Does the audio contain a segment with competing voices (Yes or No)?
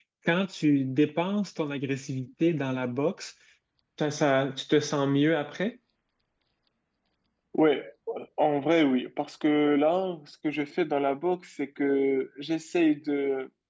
No